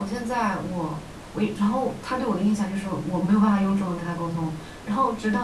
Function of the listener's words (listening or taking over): listening